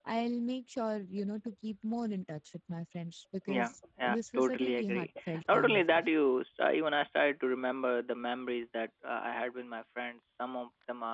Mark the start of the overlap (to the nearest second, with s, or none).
3 s